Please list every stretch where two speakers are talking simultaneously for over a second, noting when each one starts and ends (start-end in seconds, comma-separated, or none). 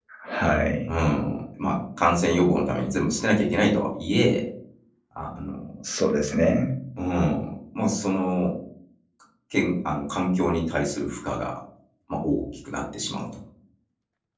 none